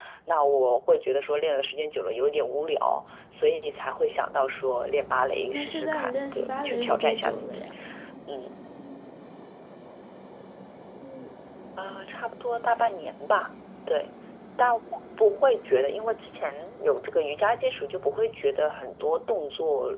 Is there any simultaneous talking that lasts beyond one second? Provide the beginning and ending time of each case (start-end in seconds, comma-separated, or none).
5.5-7.6